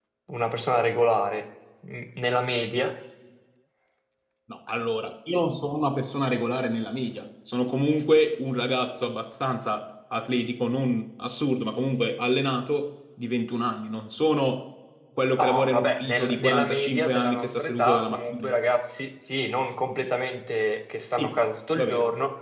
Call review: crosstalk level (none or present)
present